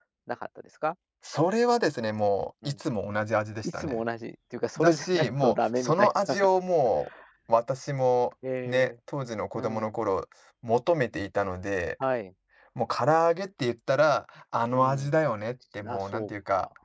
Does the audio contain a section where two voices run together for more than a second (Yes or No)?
Yes